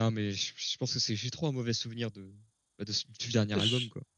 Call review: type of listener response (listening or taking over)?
taking over